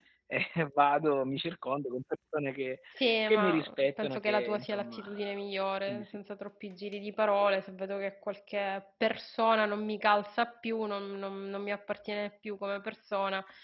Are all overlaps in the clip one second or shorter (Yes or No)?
No